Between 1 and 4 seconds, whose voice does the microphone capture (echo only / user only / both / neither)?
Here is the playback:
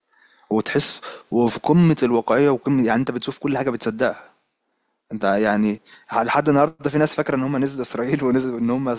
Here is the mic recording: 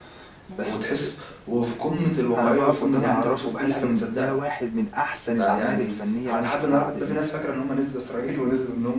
both